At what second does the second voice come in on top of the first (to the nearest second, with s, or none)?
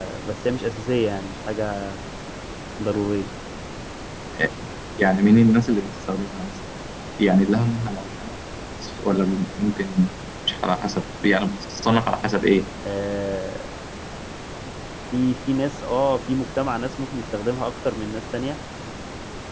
none